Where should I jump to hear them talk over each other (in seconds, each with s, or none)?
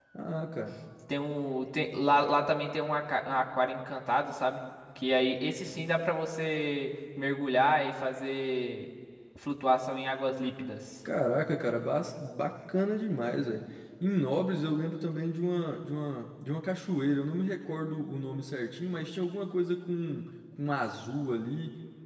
none